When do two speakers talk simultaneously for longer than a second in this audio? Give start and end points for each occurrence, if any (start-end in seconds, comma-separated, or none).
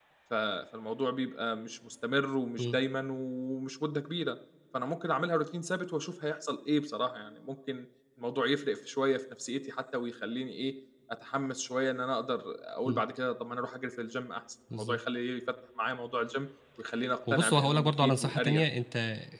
17.3-18.6